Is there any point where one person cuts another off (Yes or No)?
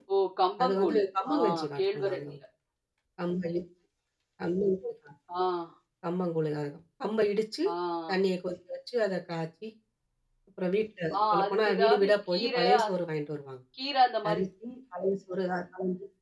Yes